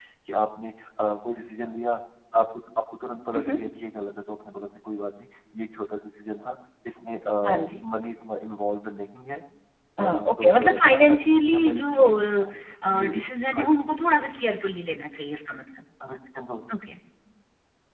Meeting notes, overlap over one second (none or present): present